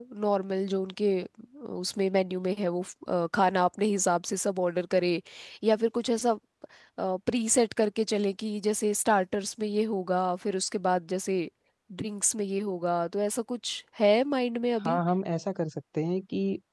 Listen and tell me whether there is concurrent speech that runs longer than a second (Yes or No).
No